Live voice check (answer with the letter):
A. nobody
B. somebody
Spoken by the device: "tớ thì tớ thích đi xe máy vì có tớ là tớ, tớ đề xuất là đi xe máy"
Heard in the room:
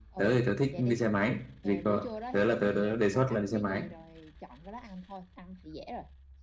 B